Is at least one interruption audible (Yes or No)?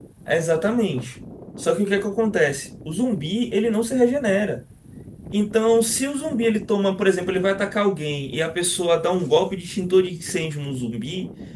No